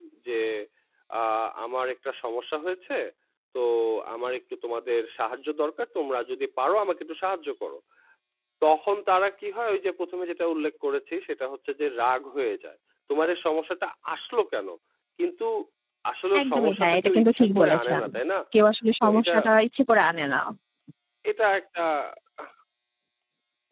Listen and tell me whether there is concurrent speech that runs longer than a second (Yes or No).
Yes